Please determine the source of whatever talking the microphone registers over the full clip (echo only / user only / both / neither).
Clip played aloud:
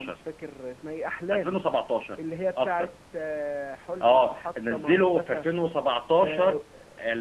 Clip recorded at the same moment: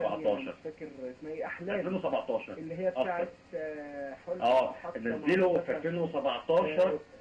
echo only